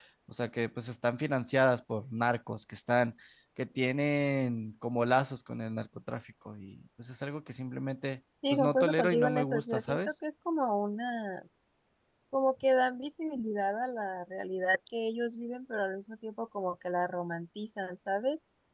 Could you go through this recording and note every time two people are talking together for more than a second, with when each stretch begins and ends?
8.5-10.1

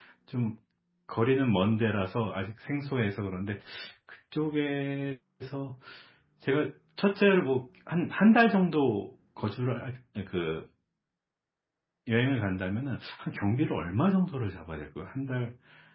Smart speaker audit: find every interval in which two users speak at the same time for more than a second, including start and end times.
none

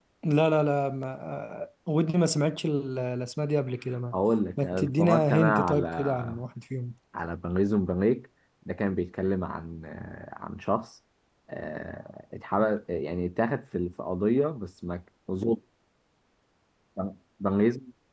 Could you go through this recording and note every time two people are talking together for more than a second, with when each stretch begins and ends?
4.6-6.2

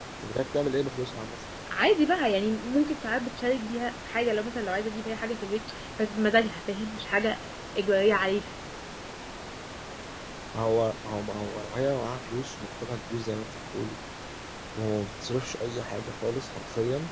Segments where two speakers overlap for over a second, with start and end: none

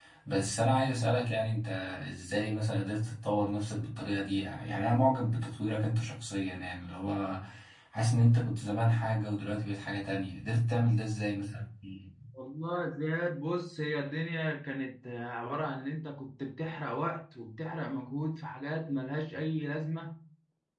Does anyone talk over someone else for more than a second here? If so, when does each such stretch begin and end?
none

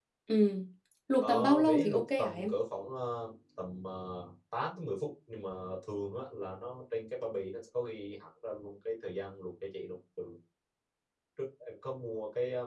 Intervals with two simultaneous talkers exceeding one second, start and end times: 1.2-2.5

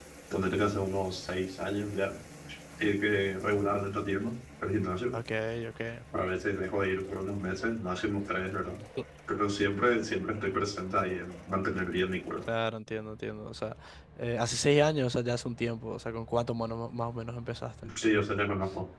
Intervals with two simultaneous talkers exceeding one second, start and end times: none

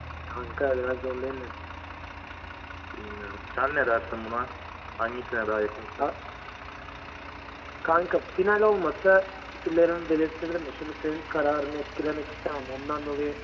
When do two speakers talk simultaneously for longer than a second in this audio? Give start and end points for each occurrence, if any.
none

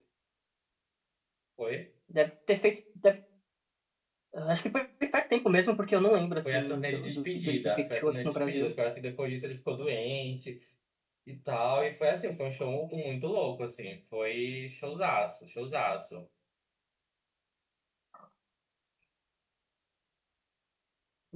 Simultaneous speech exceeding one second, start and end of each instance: 6.5-8.7

